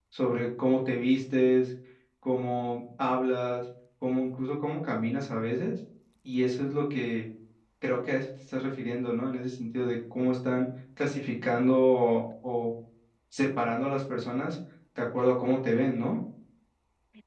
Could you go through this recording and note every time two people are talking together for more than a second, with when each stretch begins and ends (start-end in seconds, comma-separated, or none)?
none